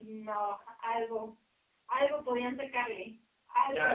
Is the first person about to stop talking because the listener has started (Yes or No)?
Yes